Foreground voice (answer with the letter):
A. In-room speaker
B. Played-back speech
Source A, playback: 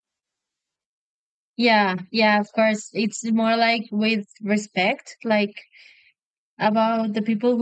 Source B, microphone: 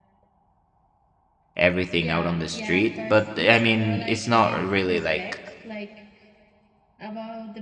A